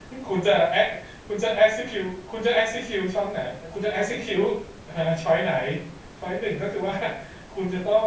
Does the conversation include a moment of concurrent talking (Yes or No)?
No